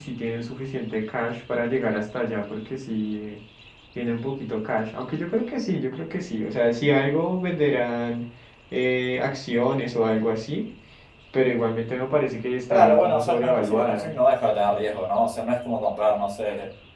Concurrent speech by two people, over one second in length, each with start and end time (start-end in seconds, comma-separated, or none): 12.7-14.1